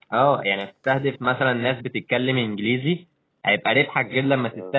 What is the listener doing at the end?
listening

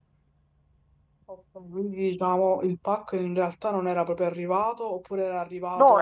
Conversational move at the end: taking over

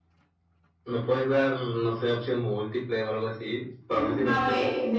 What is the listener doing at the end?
taking over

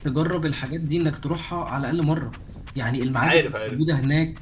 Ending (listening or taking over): listening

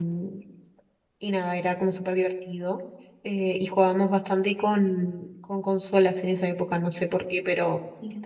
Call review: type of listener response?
listening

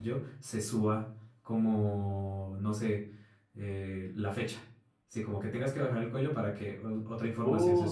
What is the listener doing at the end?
taking over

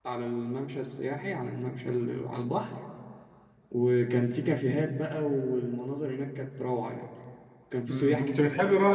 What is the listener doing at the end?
taking over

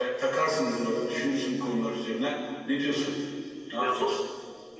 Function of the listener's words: taking over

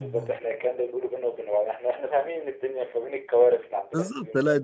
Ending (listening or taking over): taking over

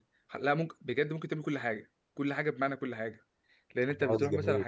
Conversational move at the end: listening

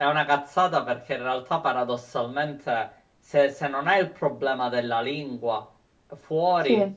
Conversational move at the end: listening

